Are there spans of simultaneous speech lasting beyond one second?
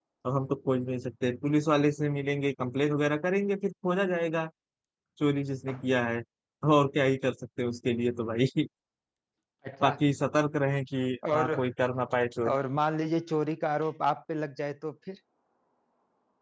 No

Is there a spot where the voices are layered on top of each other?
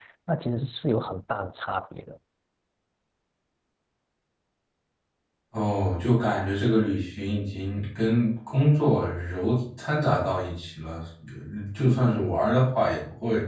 No

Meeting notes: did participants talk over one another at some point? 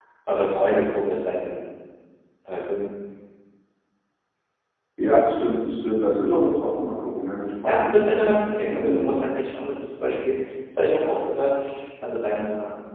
Yes, from 7.6 s

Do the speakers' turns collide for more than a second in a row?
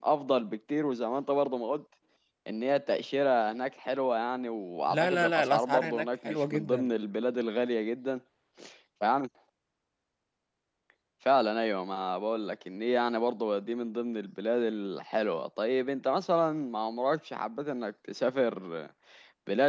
Yes, from 4.9 s

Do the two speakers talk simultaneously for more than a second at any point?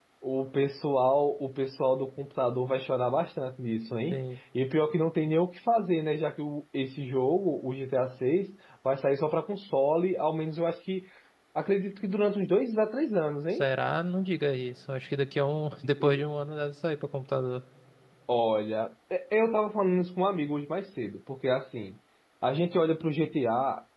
No

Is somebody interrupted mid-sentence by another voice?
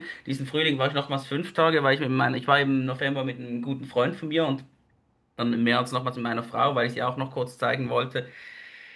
No

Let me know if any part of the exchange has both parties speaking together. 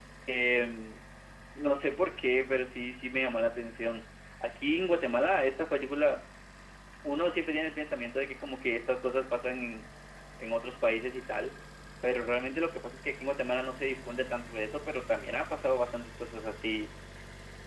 No

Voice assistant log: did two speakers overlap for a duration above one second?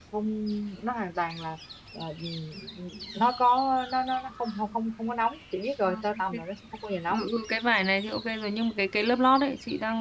No

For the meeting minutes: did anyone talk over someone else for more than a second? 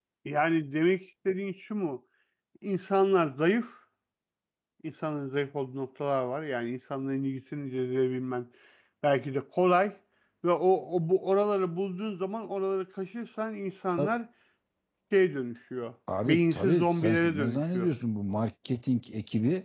Yes, from 16.1 s

